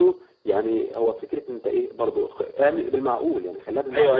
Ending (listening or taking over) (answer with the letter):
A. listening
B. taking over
B